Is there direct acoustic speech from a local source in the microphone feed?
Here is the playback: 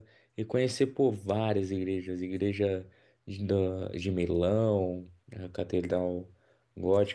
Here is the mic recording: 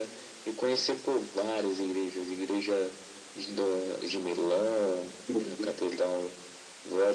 Yes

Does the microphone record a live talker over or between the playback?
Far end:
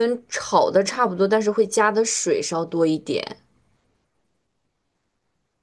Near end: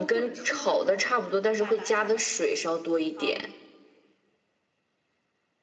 Yes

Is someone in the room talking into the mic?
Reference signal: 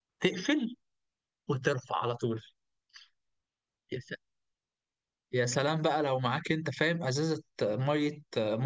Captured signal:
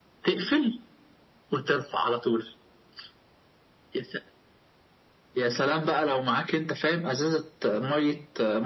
No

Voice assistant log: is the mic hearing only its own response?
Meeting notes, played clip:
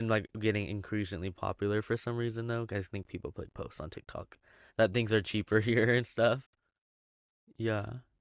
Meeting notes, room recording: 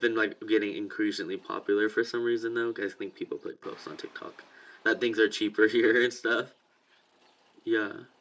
Yes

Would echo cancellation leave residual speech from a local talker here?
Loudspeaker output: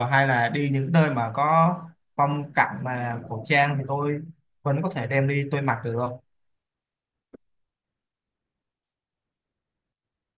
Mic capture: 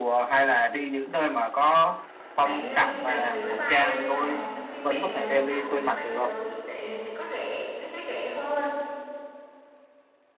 Yes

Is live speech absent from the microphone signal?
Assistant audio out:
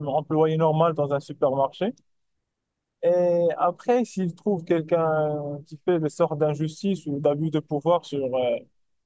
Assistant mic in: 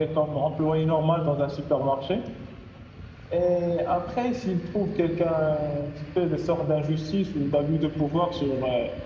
Yes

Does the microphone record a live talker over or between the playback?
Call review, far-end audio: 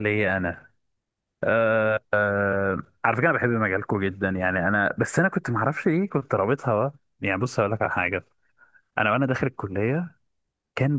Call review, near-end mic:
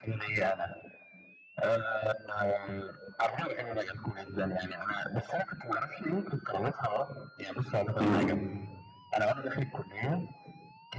Yes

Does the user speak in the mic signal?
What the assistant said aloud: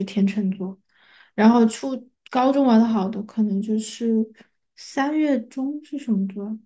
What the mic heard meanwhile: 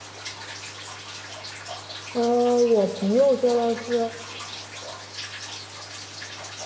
Yes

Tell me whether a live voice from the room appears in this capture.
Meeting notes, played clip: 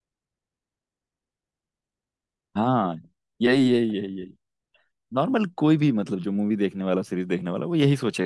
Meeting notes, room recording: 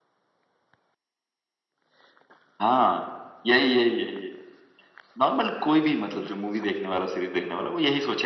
No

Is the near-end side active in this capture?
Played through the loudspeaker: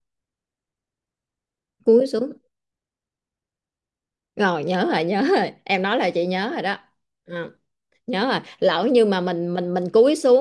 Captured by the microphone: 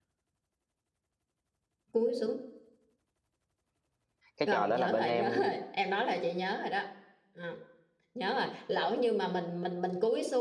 Yes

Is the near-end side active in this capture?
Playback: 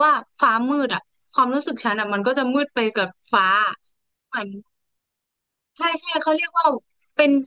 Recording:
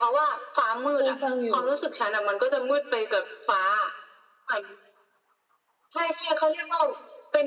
Yes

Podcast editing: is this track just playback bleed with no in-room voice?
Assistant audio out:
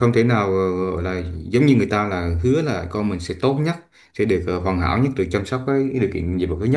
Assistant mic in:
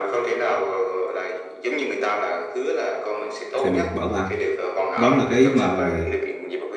No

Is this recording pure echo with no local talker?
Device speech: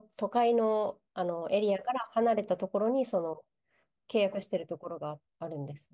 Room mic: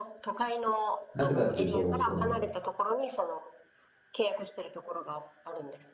No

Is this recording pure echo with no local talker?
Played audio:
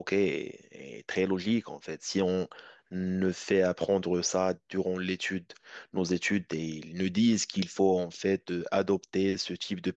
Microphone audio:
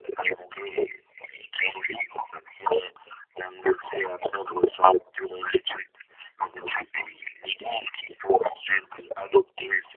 Yes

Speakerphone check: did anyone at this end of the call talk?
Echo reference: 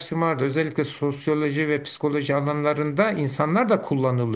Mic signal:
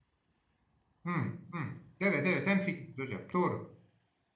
Yes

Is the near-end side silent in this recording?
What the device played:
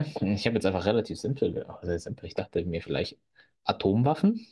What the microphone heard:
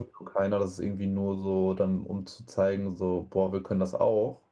No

